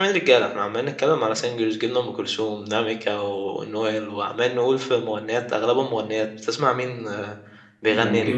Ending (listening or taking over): taking over